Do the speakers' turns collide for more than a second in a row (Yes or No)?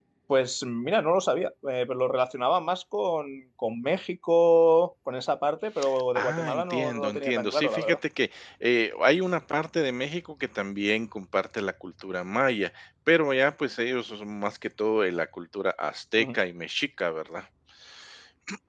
Yes